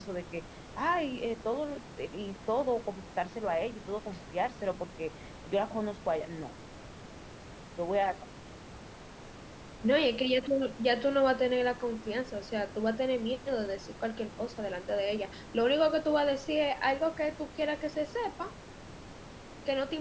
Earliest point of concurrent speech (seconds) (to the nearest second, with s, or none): none